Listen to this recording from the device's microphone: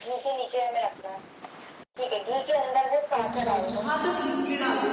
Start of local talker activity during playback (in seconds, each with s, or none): 3.1 s